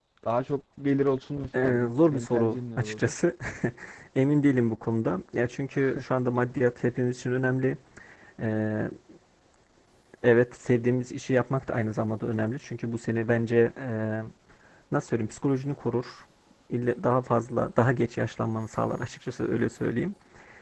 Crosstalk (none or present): present